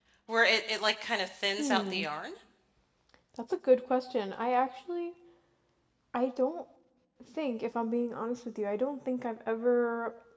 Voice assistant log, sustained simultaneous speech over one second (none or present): none